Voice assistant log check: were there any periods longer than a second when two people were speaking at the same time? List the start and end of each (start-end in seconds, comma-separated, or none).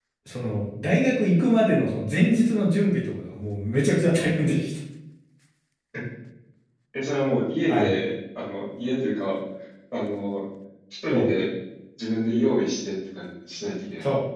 none